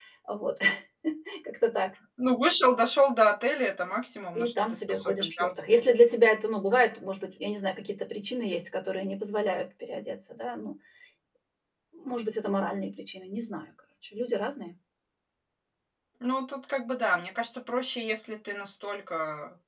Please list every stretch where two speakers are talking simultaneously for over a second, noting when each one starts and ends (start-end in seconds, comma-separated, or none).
4.4-5.6